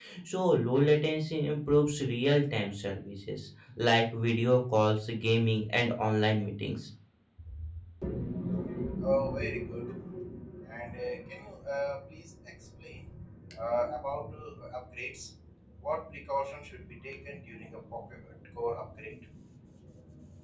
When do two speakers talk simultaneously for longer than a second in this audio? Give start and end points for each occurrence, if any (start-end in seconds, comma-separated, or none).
none